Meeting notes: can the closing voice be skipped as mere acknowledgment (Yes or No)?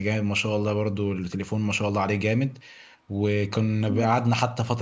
Yes